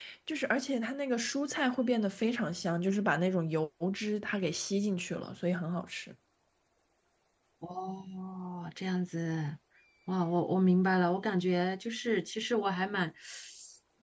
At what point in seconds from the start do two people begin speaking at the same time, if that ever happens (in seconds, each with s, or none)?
none